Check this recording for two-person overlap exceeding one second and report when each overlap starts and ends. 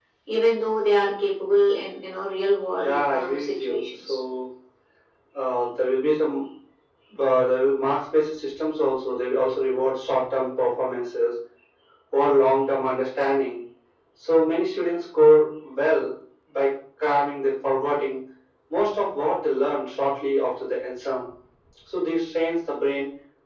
2.8-4.2

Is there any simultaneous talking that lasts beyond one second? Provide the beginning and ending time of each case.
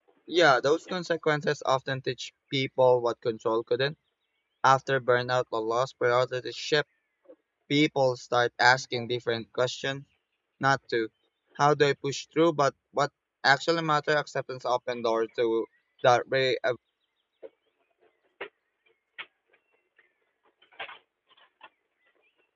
none

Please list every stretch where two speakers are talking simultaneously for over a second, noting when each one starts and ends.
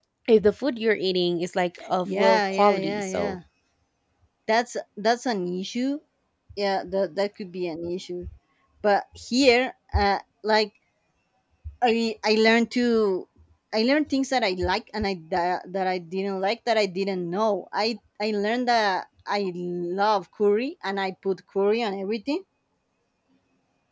2.0-3.4

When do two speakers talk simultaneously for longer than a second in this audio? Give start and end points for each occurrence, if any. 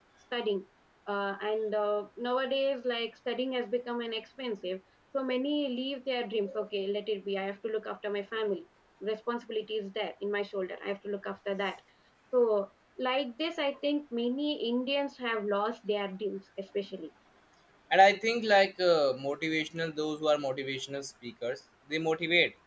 none

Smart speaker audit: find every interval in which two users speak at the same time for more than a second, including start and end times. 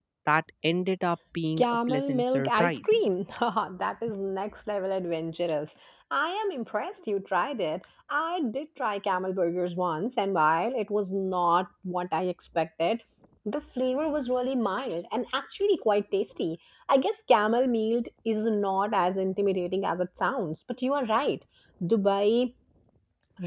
1.6-2.9

